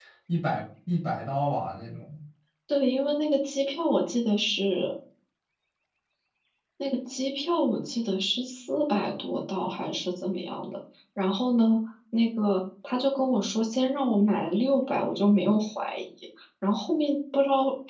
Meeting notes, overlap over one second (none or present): none